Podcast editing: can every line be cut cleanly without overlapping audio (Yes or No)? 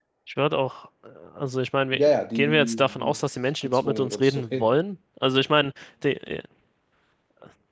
No